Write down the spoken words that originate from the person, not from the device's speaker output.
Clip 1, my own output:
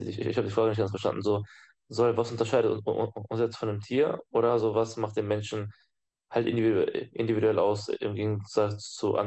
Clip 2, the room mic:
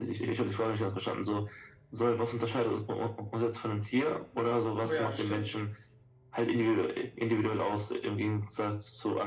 Oh ja, das stimmt.

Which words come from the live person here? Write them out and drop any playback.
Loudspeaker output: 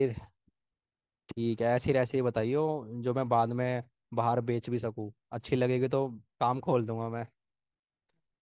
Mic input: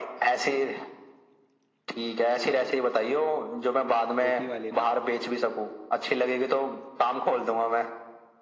सूखी वाली ना

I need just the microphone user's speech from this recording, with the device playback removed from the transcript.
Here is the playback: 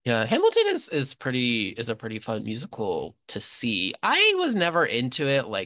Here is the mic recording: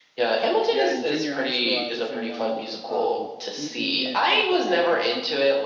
yeah, in junior high school I was in one um Meet Me at the Fair

